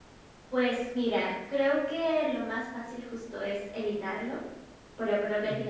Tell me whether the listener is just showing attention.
Yes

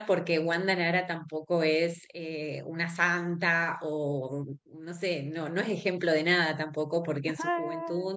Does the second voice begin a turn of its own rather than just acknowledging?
No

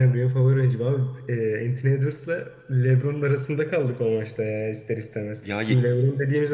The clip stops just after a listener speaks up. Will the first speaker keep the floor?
Yes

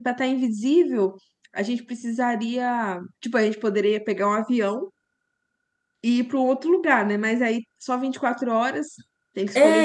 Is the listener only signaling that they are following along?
No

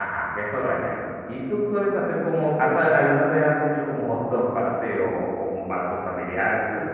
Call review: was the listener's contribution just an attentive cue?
No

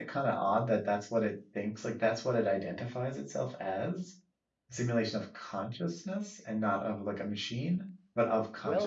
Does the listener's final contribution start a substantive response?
Yes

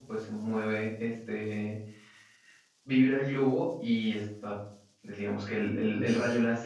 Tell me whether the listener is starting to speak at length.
No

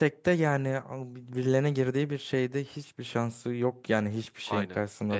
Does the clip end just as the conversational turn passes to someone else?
Yes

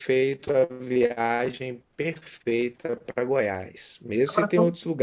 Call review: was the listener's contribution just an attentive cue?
Yes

